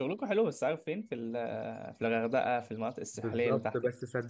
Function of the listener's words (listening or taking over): taking over